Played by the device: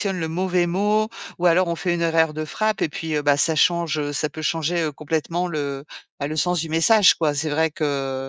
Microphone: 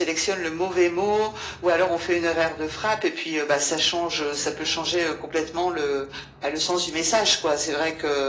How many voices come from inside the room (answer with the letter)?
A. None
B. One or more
A